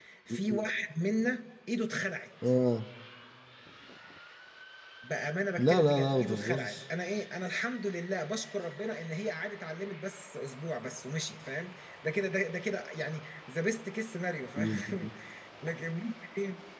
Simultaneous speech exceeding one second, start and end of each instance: 5.6-6.8

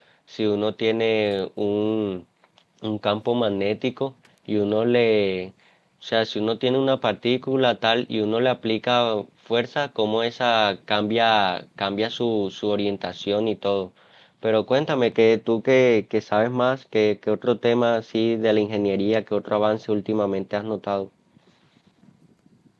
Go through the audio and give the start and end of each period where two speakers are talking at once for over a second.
none

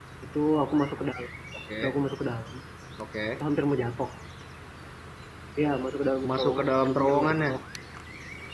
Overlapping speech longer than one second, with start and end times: 6.3-7.5

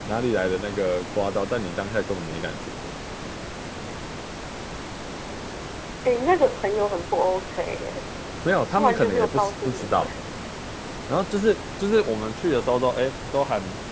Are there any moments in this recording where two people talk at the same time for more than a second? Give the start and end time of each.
8.7-10.1

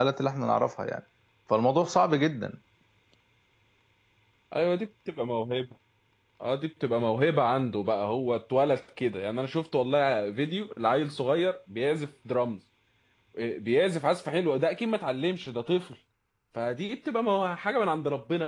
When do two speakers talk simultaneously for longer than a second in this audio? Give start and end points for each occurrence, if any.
none

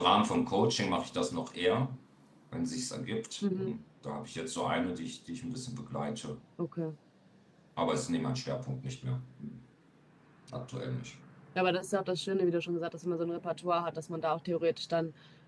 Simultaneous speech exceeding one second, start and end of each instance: none

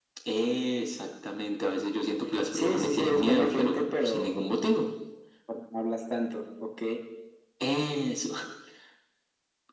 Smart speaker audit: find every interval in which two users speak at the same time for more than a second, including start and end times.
2.5-4.4

